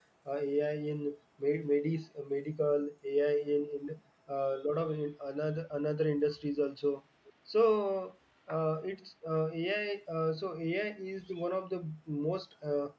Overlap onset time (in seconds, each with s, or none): none